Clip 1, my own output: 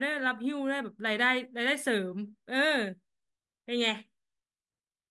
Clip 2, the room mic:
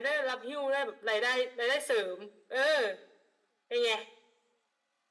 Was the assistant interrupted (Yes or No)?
No